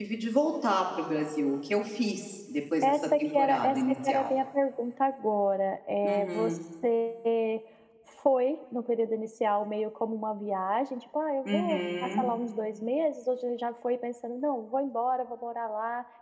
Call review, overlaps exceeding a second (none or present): present